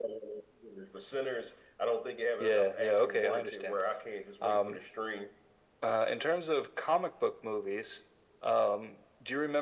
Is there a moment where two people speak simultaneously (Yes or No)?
Yes